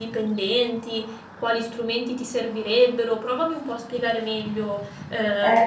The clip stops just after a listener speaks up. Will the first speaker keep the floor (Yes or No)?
No